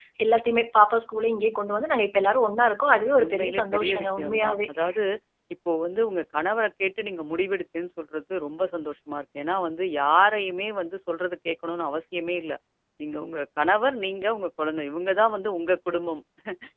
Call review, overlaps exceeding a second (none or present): present